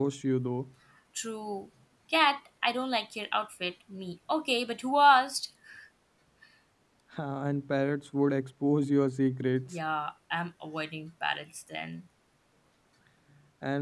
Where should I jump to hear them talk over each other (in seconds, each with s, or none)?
none